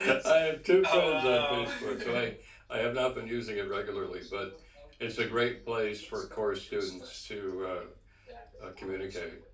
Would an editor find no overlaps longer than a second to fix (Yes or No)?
No